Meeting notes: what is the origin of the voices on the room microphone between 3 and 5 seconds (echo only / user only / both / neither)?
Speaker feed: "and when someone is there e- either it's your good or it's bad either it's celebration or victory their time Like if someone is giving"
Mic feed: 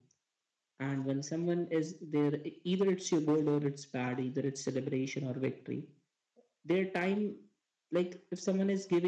echo only